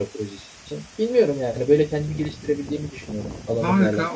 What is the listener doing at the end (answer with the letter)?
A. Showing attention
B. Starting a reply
B